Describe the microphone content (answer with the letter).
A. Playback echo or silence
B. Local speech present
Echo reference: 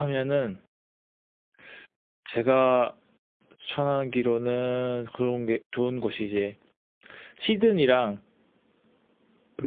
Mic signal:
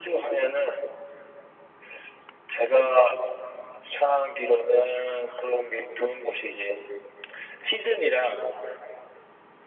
A